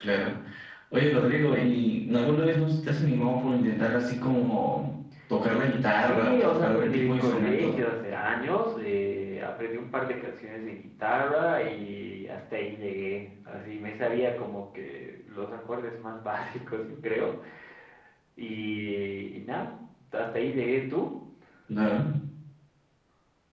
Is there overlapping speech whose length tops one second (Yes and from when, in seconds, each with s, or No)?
Yes, from 6.0 s